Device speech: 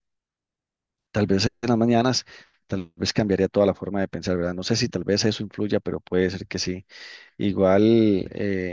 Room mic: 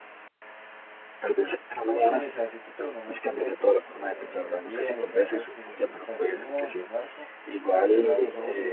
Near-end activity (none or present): present